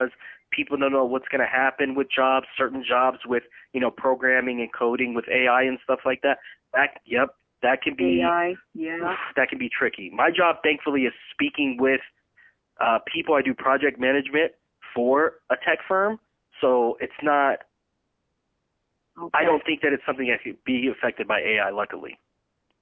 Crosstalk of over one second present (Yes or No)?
No